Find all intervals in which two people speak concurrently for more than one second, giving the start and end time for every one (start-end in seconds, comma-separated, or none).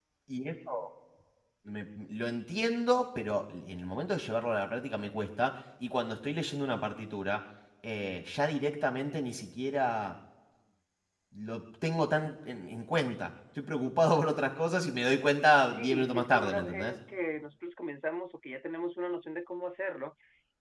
15.6-16.9